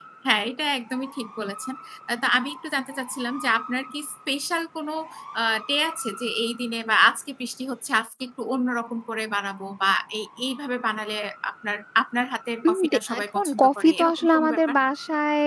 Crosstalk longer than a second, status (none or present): present